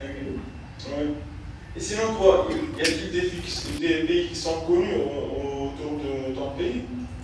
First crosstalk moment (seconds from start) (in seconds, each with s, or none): none